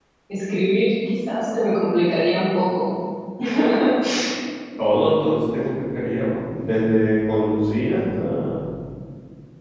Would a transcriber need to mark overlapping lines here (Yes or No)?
No